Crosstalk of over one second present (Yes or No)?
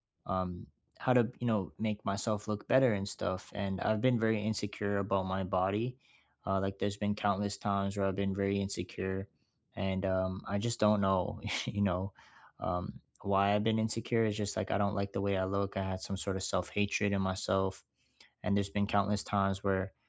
No